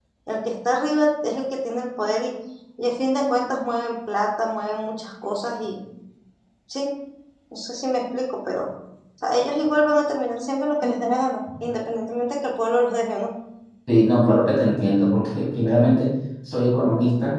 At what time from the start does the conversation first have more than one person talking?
none

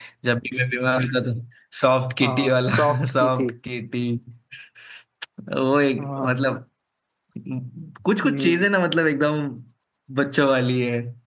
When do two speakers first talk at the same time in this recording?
2.2 s

